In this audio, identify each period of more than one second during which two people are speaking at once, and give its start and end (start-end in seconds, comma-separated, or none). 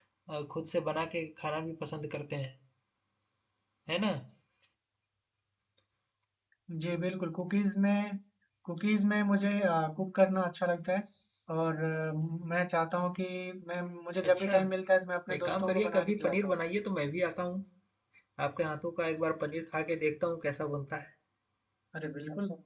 15.3-16.5